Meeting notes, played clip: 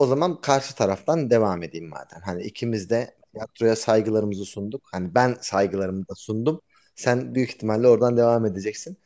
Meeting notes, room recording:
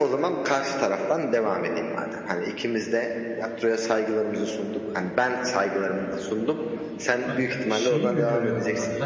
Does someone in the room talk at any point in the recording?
Yes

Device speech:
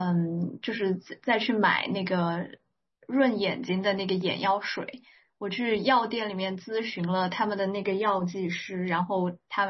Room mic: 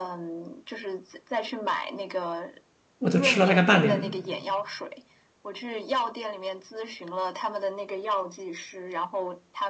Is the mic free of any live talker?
No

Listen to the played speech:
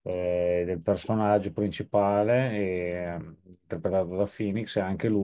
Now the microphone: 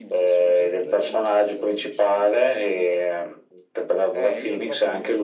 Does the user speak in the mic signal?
Yes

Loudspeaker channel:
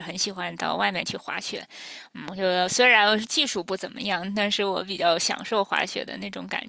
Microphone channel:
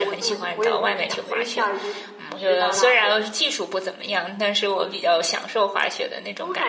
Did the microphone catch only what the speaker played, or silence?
No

